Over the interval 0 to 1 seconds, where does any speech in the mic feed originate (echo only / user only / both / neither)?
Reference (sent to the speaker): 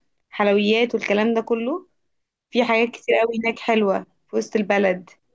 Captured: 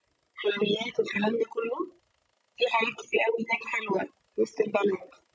echo only